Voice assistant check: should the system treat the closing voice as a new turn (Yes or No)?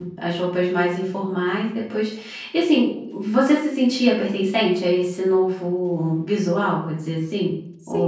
Yes